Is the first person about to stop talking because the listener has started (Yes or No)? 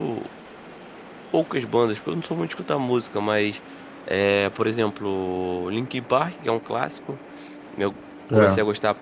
No